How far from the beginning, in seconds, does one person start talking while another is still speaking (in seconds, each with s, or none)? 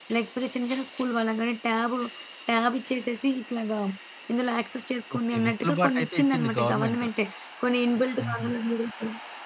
5.2 s